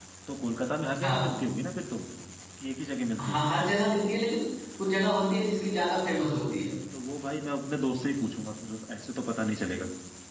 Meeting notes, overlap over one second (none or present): none